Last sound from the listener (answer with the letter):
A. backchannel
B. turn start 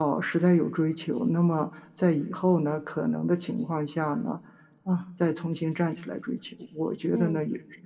A